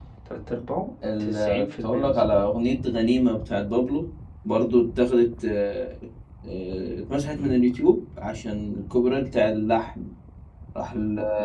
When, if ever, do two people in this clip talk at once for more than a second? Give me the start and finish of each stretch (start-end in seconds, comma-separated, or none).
1.2-2.4